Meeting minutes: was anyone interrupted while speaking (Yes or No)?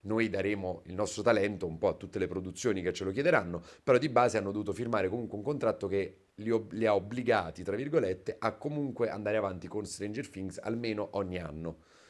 No